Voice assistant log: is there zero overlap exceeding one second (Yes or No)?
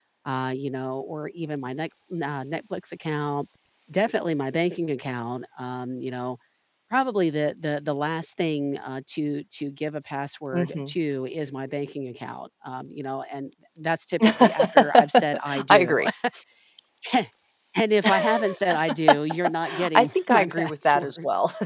No